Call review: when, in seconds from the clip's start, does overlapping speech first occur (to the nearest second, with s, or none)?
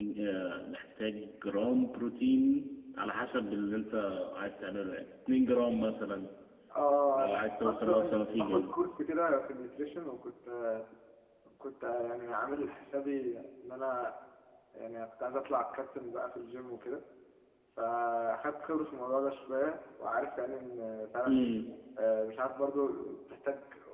7 s